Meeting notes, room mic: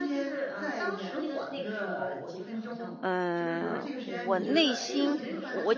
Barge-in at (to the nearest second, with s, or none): 3 s